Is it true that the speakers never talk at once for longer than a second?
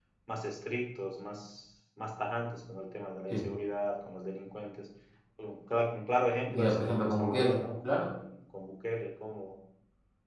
No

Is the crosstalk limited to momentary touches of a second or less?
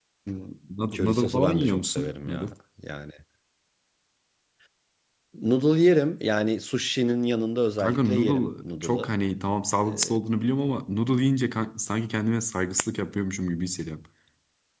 No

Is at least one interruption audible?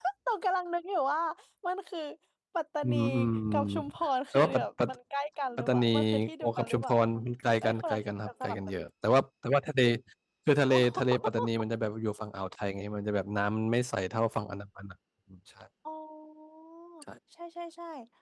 Yes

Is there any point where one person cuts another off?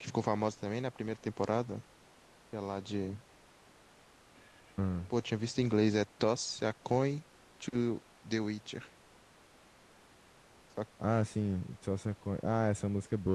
No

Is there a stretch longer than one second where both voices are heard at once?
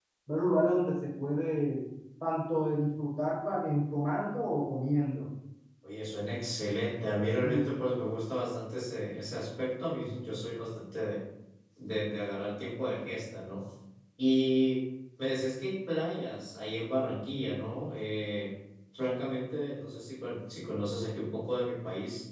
No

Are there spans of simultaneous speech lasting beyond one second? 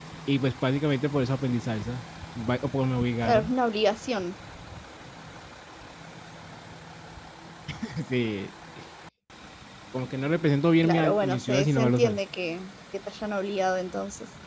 Yes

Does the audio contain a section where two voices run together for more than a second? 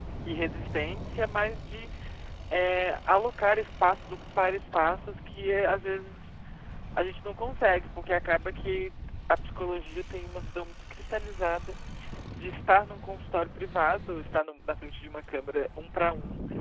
No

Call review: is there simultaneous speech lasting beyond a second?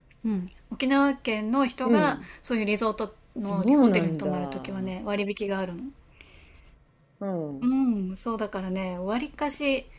Yes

